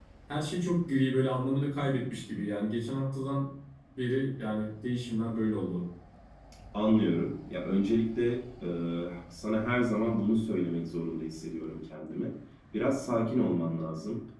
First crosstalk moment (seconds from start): none

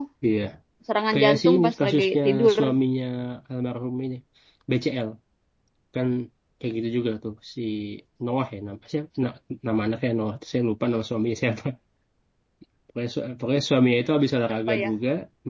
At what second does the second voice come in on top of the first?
1 s

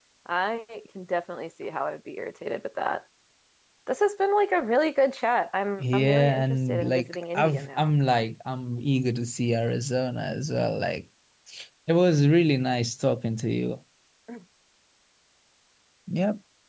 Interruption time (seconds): 6 s

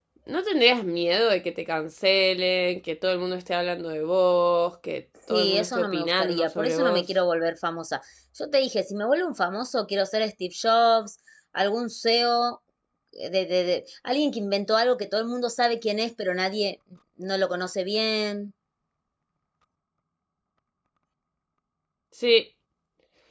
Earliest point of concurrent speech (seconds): 5 s

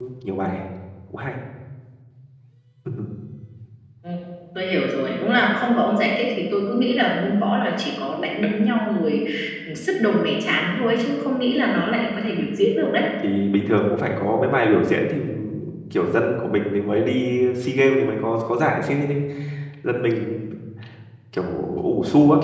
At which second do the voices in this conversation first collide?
none

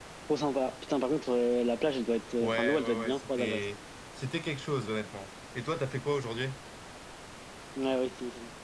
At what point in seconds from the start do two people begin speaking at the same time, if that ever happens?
2 s

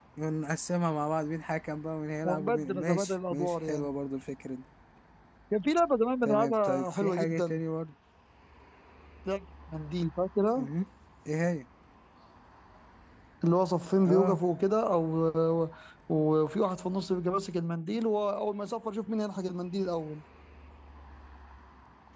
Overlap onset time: 2 s

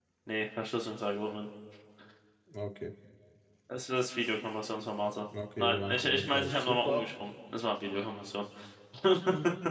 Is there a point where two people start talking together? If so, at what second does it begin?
6 s

